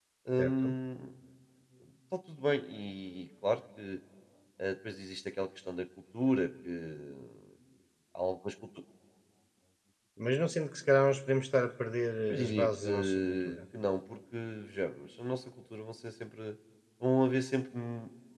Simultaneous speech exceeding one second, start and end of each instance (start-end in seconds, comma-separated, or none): 12.3-13.6